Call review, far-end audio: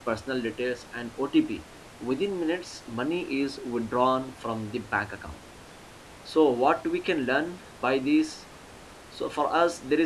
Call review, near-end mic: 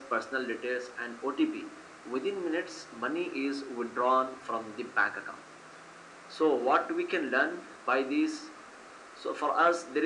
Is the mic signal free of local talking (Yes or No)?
Yes